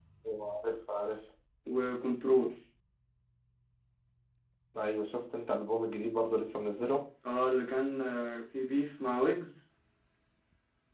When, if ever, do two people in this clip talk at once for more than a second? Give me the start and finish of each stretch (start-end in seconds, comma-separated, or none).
none